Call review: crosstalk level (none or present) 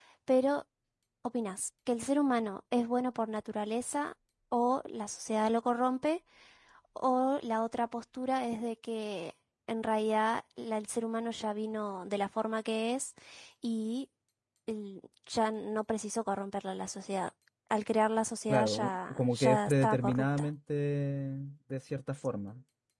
present